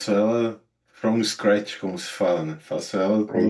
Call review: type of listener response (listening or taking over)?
listening